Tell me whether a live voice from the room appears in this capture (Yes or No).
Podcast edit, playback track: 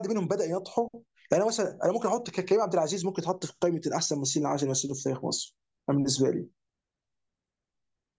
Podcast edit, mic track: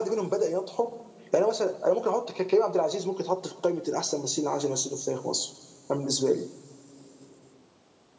No